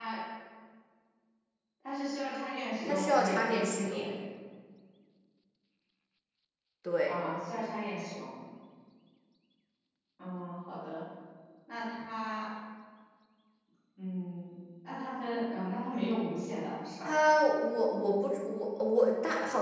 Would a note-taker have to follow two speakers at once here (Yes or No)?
Yes